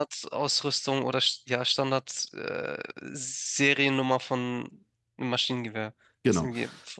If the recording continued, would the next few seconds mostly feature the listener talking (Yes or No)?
Yes